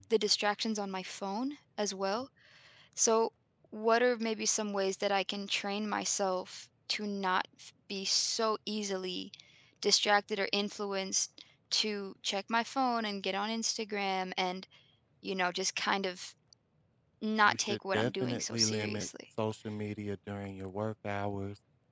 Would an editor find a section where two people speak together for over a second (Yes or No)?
Yes